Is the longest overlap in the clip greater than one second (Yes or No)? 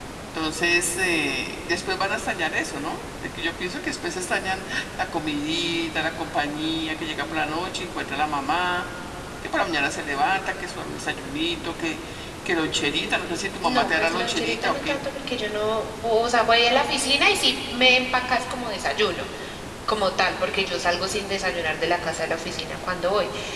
Yes